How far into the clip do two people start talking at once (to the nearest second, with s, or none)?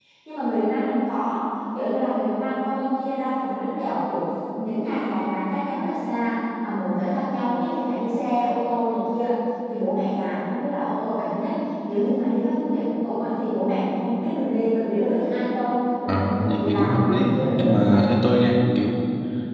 16 s